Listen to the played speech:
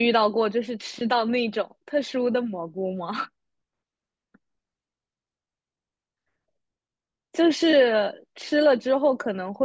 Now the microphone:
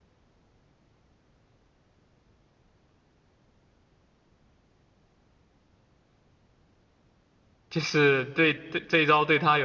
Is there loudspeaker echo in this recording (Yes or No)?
No